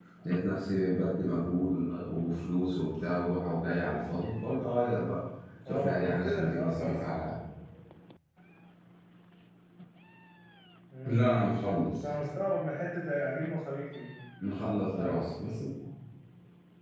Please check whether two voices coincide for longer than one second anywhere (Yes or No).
Yes